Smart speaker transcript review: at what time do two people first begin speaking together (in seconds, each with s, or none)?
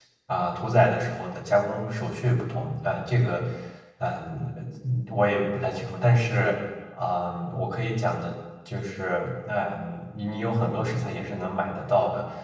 none